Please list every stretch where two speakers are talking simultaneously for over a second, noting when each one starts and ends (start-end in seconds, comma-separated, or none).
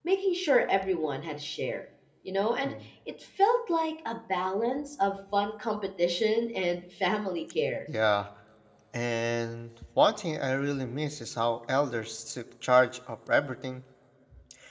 none